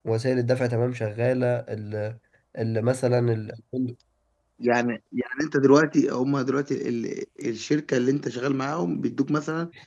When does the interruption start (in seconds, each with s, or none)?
none